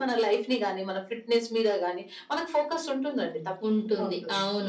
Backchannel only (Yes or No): No